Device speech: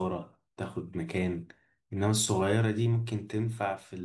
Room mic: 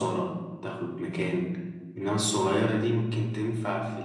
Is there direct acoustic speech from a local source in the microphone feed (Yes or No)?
No